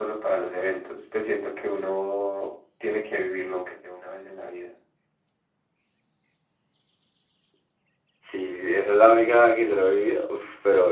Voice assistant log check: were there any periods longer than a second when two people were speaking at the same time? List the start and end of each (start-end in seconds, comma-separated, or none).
none